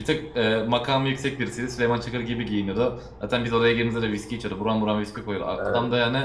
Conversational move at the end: listening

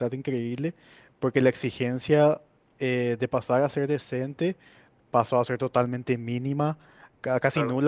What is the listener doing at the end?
listening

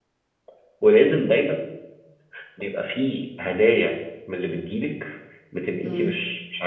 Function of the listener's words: listening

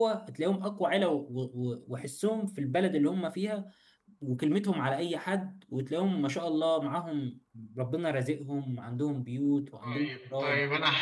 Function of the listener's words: taking over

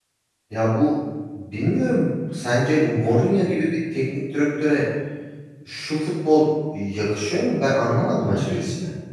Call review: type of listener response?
taking over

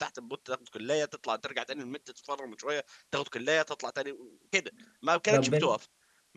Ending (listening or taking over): listening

